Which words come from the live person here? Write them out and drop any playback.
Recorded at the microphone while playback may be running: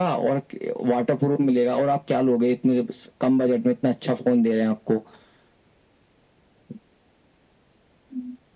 none

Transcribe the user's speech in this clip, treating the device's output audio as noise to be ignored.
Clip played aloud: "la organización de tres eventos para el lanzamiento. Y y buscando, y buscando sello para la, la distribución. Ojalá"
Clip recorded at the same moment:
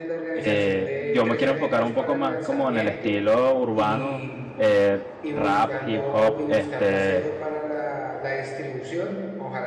eh, yo me quiero enfocar un poco más como en el estilo urbano, eh, rap, hip hop, este,

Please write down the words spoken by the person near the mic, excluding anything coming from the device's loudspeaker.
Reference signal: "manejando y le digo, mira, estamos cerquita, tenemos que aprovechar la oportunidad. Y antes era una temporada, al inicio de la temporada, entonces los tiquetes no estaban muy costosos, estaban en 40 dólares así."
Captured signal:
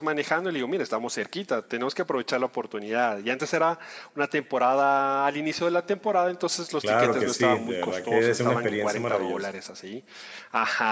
claro que sí, de verdad que es una experiencia maravillosa.

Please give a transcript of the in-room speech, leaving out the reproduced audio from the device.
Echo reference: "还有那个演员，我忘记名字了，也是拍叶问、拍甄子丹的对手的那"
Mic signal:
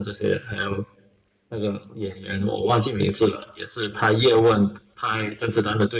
none

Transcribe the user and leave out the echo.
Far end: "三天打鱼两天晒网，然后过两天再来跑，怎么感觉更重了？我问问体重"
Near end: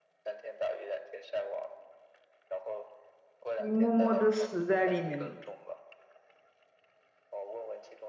你默默的死在里面了。

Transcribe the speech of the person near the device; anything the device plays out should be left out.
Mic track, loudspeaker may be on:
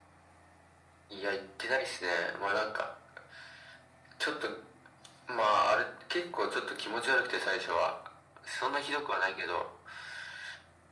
none

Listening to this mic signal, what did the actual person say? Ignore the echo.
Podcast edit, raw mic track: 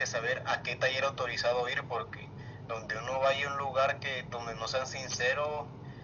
none

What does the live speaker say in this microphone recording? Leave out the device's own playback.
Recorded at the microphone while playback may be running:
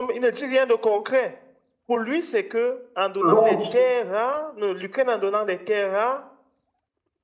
Donc,

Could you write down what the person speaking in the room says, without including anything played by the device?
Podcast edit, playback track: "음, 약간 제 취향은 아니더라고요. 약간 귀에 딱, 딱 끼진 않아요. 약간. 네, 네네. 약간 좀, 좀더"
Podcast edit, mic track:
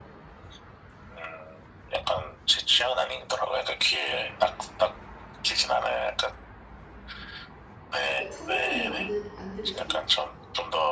그러니까 찾아서는 안, 들, 안 들으시나 보다.

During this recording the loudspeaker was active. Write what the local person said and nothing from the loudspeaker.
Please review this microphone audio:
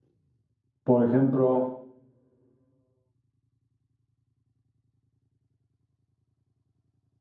Por ejemplo,

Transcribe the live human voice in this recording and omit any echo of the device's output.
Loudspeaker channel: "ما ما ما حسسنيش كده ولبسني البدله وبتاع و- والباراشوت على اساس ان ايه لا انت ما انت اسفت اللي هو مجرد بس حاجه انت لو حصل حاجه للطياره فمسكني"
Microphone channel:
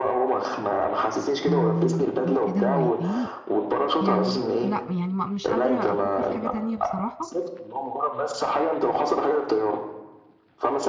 أم، دول كده هوايتين يعني لا يعني ما مش قادره افكر في حاجه تانية بصراحه

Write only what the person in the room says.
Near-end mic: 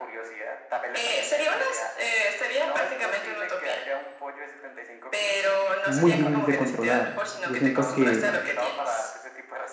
muy difícil de controlar. Yo siento que,

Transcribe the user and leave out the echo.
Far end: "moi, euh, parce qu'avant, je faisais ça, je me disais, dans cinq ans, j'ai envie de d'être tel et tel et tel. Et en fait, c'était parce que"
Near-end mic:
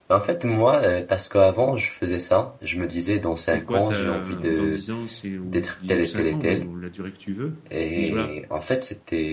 c'est quoi ta, dans 10 ans, c'est ou je dis ou 5 ans, ou la durée que tu veux. Tu dis voilà,

